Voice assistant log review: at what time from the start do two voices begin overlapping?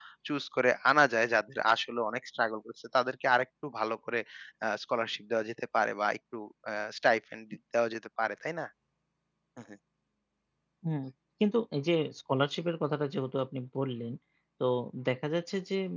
none

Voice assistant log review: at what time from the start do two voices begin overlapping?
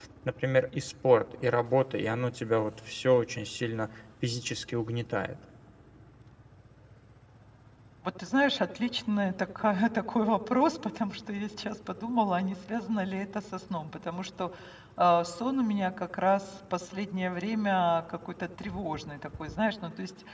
none

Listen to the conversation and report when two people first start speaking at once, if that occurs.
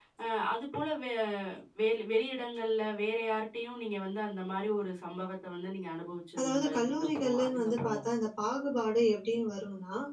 6 s

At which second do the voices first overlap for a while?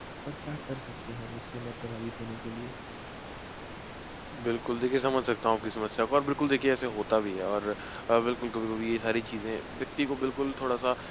none

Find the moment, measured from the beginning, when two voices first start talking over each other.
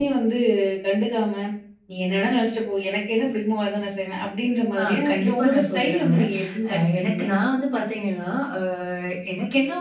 5 s

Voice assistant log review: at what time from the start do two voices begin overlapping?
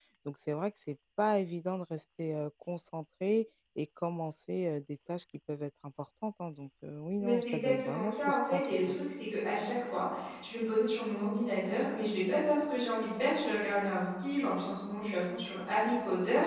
7 s

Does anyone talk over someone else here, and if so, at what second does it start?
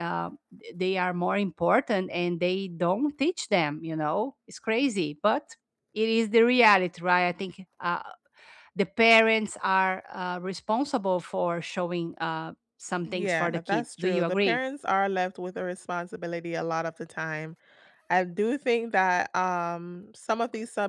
13 s

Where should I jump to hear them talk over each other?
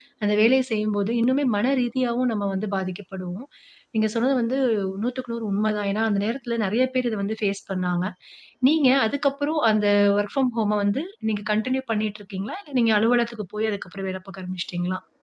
none

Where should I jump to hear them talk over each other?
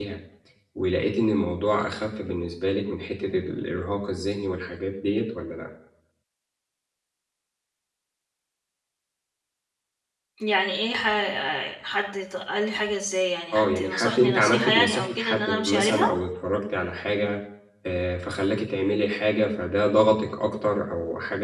14 s

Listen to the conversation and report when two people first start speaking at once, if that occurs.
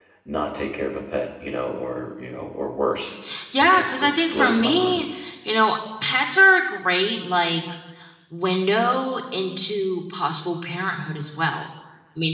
4 s

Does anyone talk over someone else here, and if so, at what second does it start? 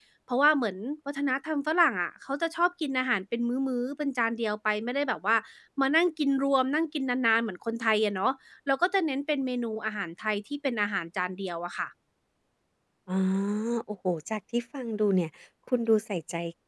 none

